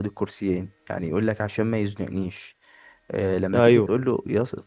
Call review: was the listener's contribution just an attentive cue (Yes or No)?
Yes